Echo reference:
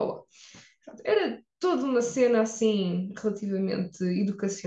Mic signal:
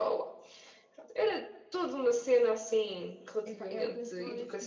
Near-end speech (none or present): present